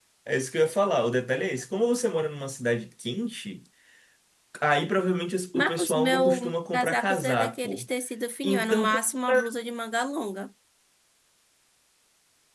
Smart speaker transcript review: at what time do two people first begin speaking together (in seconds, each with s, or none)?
5.5 s